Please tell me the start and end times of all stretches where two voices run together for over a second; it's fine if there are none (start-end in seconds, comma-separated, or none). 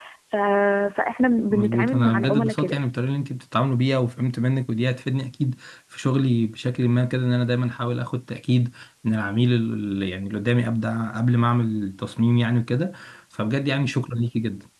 1.5-2.8